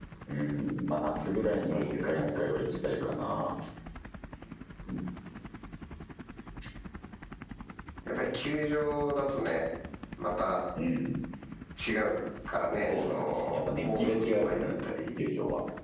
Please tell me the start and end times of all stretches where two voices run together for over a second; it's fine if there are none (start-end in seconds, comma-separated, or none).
12.9-14.7